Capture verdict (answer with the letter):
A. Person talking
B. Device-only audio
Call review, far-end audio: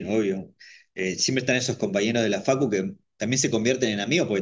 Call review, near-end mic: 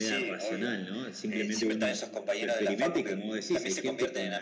A